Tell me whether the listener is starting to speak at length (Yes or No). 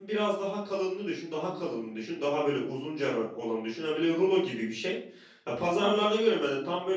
No